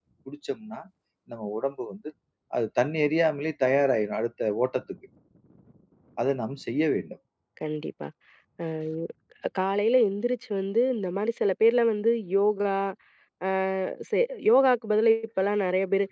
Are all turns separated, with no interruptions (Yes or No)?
Yes